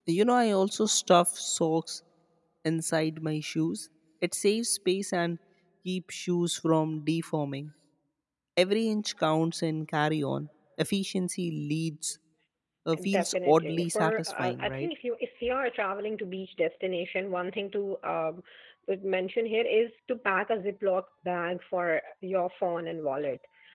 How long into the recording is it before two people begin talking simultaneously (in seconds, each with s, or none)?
13.0 s